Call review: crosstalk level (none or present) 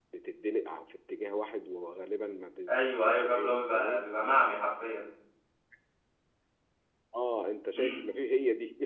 present